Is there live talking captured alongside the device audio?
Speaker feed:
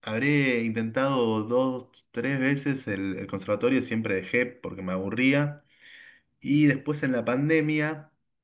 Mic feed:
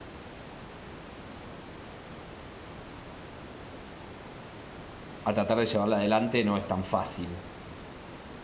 Yes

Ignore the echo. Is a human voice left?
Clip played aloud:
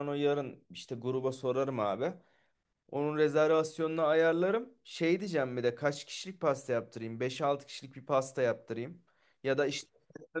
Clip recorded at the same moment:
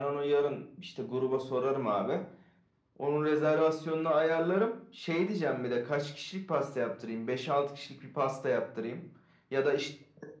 No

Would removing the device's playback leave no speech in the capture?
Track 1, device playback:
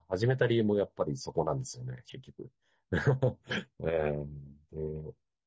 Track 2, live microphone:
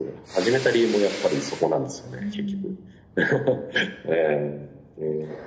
No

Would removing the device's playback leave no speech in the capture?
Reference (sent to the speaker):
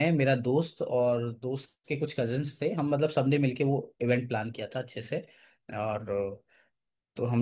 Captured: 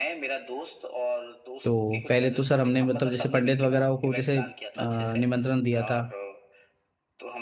No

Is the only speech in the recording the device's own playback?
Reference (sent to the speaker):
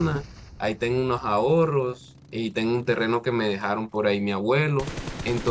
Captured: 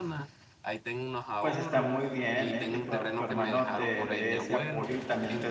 No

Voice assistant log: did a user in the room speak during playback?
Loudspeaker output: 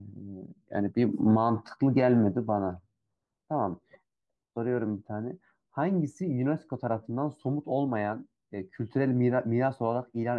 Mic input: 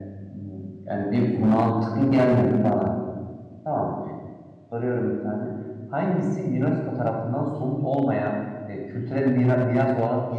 No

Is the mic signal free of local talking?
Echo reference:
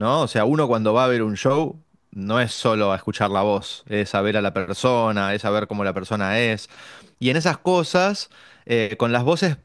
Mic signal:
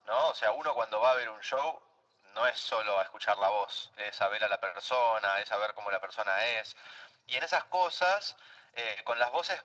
Yes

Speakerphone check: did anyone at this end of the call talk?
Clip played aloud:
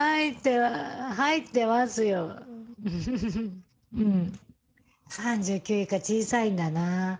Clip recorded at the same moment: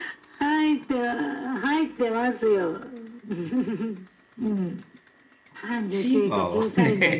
Yes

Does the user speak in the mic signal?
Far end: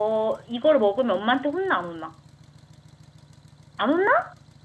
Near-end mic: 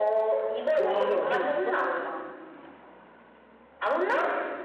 Yes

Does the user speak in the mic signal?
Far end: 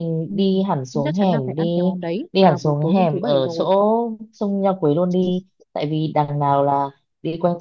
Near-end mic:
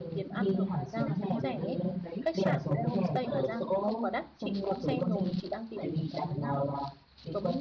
Yes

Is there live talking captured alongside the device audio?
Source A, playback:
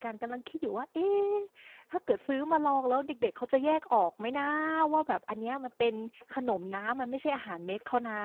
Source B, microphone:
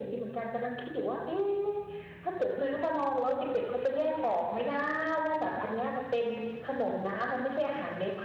No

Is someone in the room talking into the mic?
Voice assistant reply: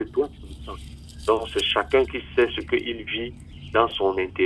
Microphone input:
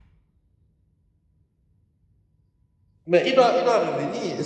Yes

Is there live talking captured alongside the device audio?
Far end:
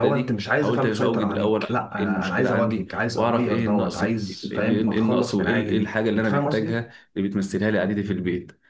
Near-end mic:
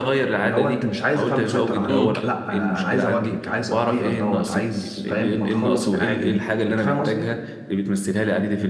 Yes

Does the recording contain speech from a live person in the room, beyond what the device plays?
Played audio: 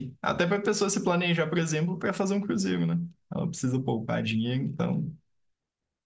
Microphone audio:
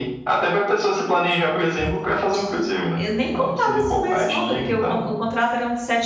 Yes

